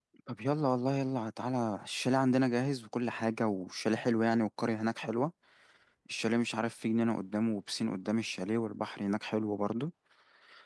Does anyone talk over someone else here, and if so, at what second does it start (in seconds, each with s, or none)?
none